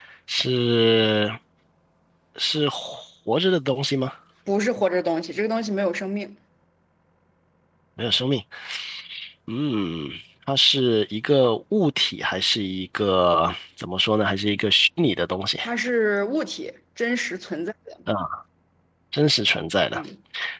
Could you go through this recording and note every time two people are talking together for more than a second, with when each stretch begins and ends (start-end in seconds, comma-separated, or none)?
none